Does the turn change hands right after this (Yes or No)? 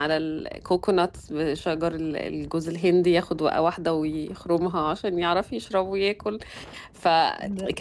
No